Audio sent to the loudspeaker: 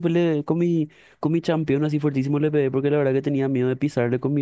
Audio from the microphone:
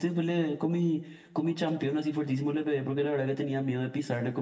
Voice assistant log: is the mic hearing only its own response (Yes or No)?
Yes